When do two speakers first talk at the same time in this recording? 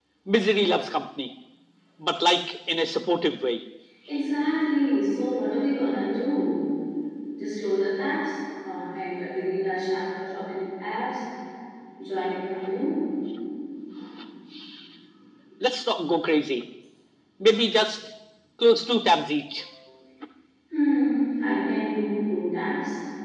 none

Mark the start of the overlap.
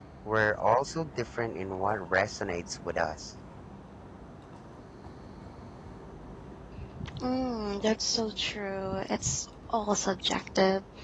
none

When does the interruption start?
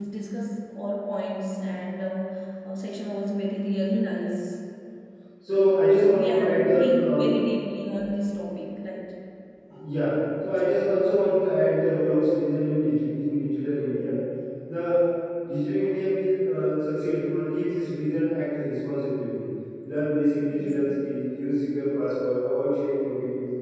6.0 s

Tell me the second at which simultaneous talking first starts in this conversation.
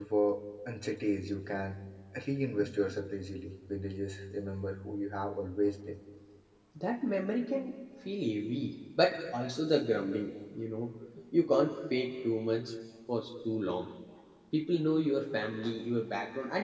none

